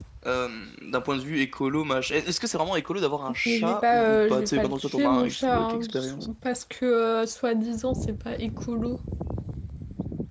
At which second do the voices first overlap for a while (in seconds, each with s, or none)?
3.5 s